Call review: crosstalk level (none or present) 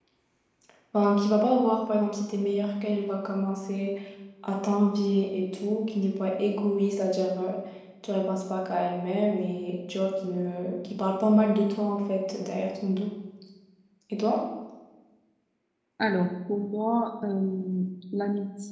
none